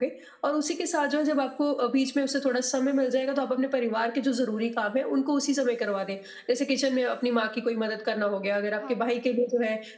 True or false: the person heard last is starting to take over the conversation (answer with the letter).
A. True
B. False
B